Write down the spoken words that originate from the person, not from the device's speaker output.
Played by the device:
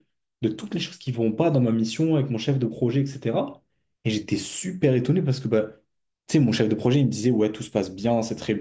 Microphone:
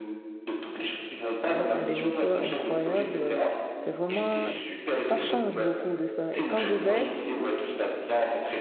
hein, à des hauteurs incroyables. C'est vraiment, ça change beaucoup de ça. Et quand je vais,

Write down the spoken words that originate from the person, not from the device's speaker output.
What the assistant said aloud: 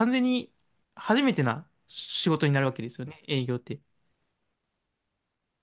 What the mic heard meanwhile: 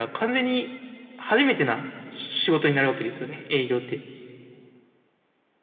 none

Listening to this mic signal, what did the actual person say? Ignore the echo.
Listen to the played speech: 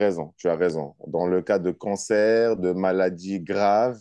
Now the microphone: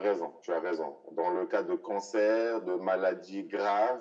none

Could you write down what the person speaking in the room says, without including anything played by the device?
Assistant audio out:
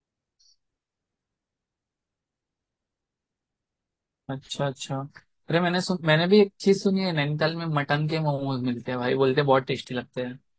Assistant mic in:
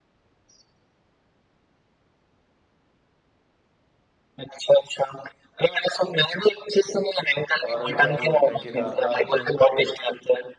और क्या बोलते हैं केदारनाथ

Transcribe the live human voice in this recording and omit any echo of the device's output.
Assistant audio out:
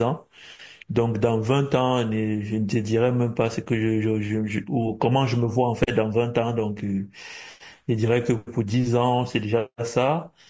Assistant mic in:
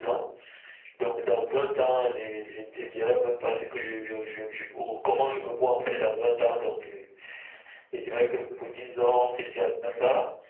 none

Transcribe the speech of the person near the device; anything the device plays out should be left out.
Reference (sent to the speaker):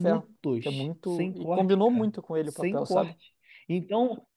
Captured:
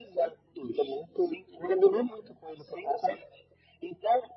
none

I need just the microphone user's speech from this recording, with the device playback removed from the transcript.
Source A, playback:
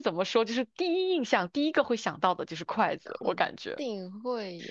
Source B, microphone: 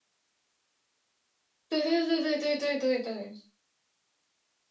对对对对对对对对

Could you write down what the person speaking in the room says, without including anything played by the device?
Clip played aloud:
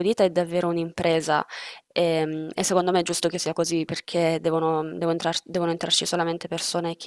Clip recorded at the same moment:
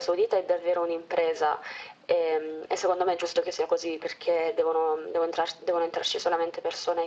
none

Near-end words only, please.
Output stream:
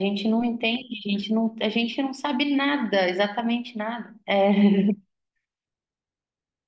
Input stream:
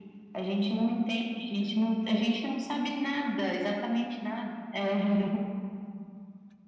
none

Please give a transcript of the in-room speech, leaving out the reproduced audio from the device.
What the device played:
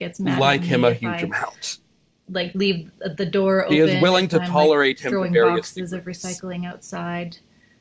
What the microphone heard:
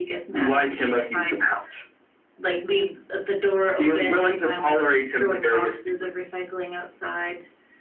none

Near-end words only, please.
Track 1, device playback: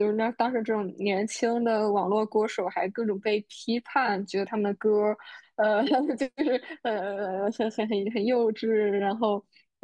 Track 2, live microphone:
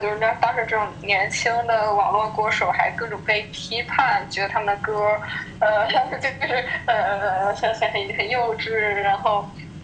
none

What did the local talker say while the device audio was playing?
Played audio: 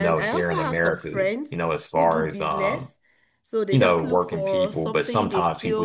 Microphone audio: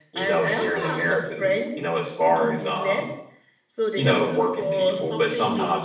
none

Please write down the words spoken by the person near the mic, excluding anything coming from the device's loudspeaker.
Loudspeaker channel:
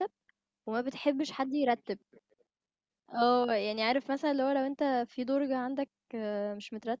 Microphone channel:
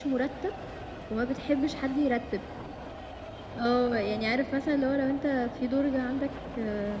none

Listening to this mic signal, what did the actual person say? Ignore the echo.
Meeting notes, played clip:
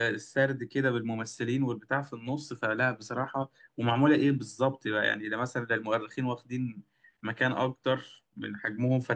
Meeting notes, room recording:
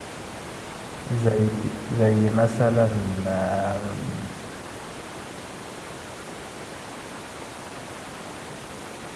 زي زي مثلا آم،

